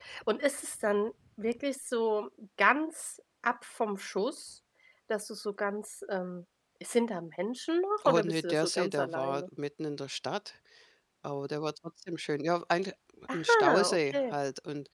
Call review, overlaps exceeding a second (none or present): present